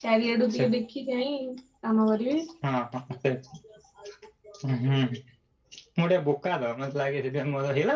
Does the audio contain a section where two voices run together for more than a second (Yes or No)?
No